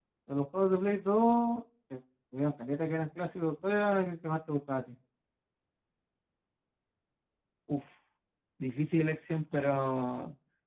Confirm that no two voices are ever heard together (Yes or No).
Yes